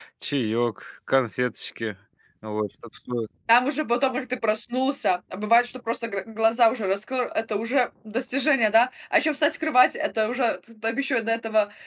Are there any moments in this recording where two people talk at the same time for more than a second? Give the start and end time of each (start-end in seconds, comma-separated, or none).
none